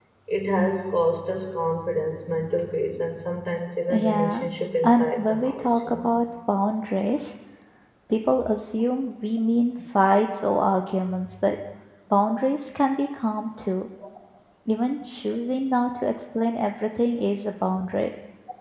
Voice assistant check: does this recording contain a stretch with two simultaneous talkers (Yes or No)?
Yes